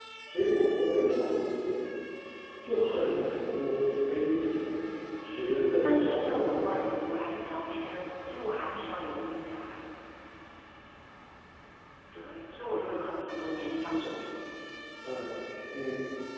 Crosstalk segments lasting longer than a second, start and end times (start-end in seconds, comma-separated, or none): 5.4-6.8